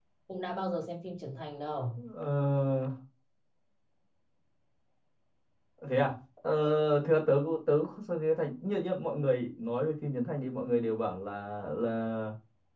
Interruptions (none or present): none